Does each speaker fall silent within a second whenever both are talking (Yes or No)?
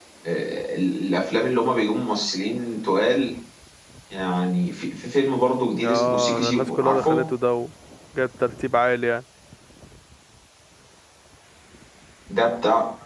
No